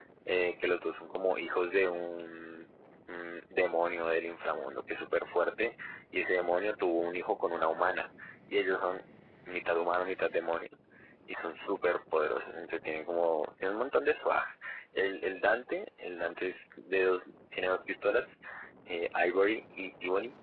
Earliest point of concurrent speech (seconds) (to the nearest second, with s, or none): none